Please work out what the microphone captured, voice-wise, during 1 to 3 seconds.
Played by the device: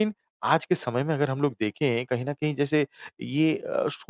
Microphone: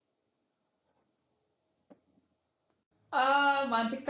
neither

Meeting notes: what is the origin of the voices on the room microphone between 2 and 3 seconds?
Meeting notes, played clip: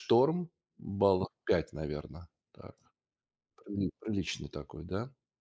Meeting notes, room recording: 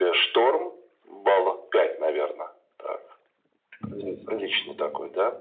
echo only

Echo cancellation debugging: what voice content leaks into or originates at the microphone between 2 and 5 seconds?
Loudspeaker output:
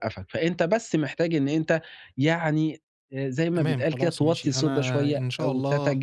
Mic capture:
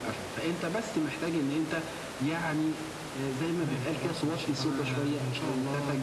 echo only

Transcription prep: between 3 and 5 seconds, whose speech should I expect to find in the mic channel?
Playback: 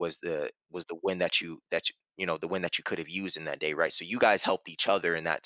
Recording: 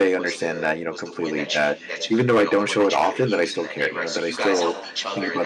both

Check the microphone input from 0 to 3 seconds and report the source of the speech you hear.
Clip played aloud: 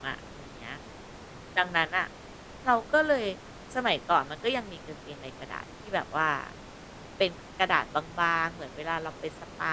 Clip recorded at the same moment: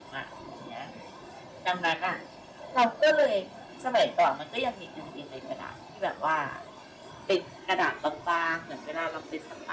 echo only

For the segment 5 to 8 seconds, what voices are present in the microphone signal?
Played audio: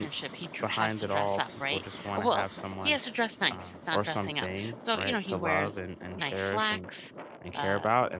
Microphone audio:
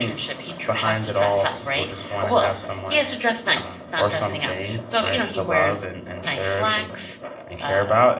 echo only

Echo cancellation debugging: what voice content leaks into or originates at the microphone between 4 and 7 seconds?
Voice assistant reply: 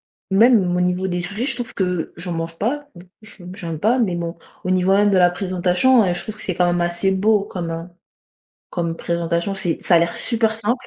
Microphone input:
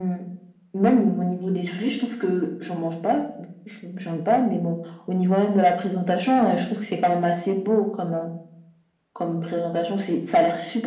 echo only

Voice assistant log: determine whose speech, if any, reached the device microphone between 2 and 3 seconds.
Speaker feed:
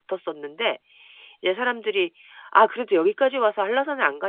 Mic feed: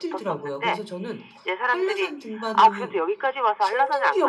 both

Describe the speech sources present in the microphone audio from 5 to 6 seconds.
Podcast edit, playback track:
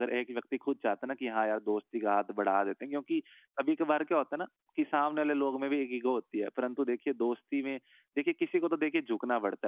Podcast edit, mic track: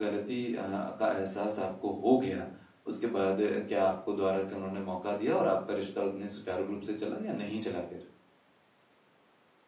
user only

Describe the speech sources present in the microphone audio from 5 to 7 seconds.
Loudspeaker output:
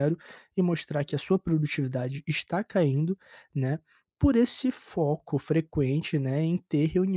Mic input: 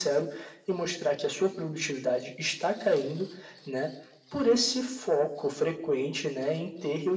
echo only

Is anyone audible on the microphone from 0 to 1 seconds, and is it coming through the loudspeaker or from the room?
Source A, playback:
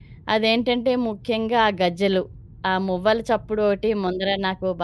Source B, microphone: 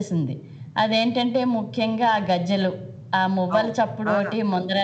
echo only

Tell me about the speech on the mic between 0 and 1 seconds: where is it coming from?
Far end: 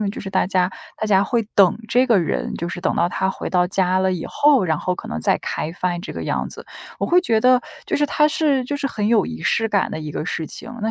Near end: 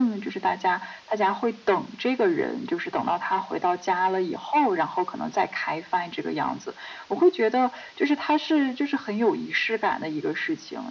echo only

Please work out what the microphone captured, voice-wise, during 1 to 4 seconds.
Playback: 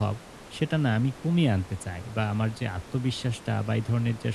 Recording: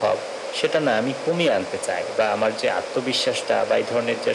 echo only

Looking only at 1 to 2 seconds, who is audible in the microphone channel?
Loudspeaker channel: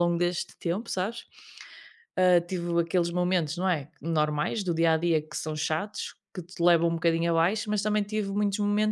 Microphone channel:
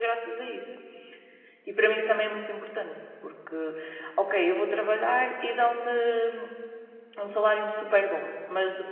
user only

